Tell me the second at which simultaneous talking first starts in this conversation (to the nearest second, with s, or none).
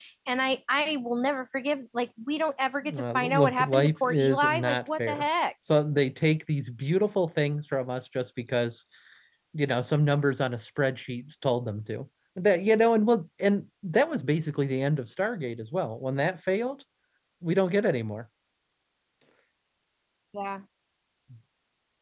3 s